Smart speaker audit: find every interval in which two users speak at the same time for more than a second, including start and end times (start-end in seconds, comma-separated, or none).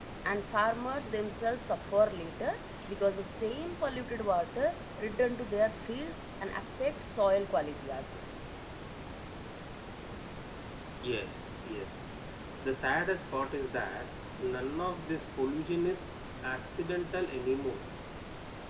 none